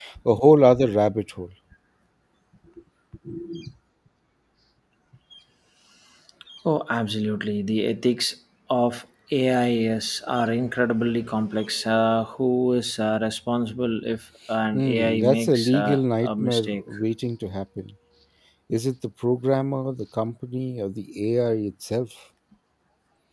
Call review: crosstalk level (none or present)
present